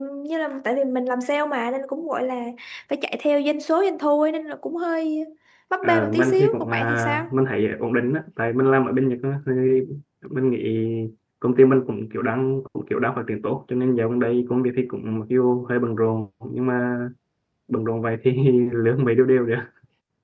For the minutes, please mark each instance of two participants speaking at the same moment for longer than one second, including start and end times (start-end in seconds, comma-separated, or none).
5.8-7.3